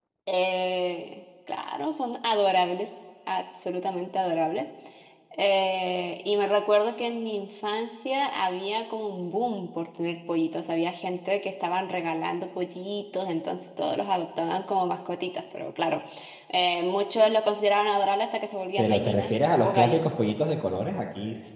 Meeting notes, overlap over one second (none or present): present